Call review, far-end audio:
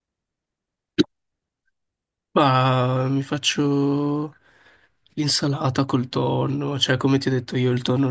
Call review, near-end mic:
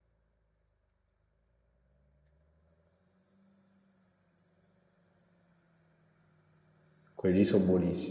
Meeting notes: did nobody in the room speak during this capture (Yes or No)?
No